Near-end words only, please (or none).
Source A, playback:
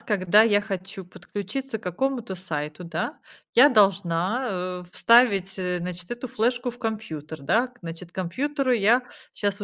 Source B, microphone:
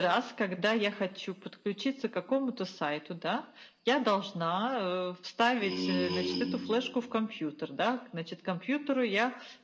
М.